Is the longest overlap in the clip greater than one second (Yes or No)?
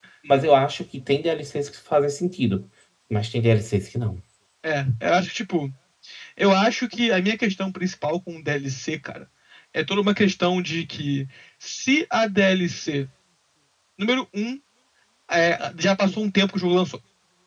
No